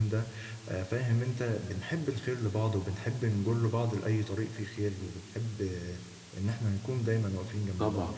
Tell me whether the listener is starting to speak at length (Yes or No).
No